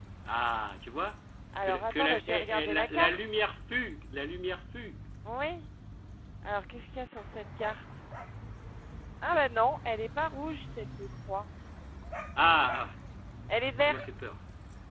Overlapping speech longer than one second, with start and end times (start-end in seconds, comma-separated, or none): 1.6-3.2